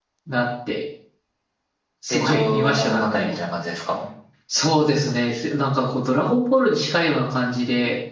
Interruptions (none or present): present